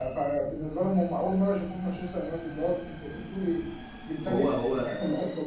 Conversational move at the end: listening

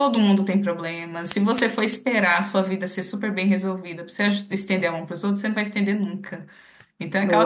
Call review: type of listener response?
listening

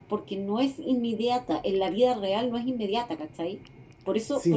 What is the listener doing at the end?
taking over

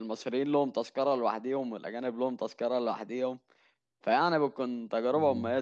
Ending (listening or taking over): listening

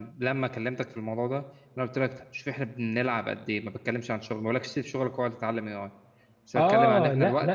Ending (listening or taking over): taking over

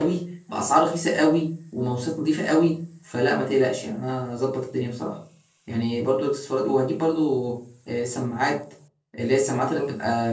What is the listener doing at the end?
listening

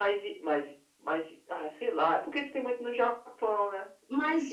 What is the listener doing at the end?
taking over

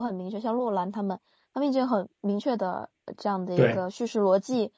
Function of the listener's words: listening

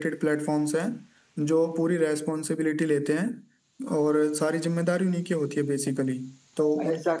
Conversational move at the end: taking over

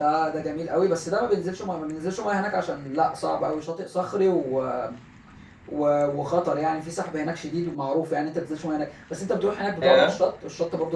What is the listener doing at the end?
listening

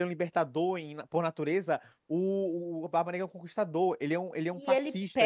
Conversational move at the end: taking over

